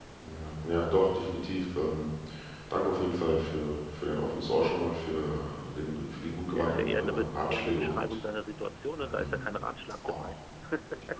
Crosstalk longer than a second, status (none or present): present